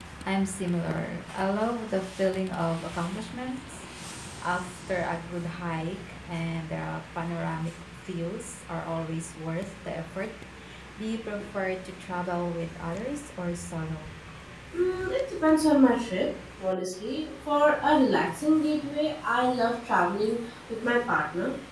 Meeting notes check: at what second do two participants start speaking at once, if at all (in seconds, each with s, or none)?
none